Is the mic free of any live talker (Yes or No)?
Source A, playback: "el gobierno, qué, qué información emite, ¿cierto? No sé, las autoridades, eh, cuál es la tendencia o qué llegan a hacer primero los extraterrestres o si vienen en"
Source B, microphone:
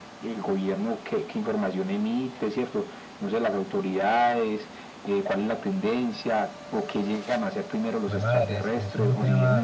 No